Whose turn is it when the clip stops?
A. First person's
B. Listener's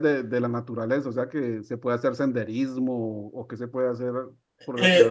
B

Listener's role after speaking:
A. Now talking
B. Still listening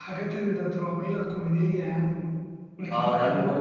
A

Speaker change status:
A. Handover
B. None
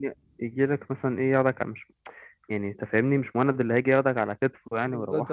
A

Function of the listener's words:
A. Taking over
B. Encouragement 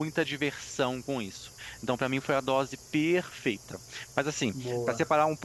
B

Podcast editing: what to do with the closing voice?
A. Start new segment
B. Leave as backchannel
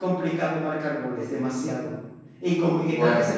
B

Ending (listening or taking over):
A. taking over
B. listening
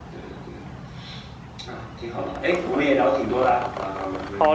A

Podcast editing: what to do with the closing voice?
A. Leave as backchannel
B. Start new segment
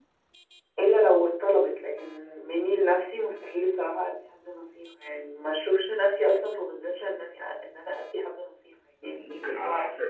B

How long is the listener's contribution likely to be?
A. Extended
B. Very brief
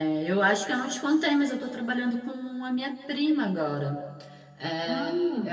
B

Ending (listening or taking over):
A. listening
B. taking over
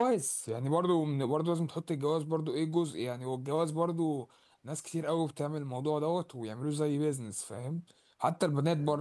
A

